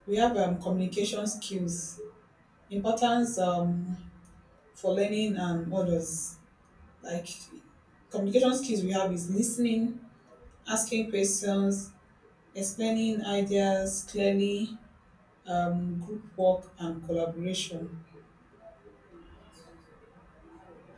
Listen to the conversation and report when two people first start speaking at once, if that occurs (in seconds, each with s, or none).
none